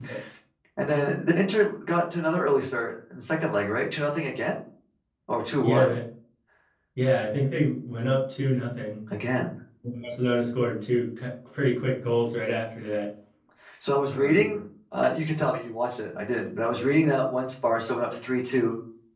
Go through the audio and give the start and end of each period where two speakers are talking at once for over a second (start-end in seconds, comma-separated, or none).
none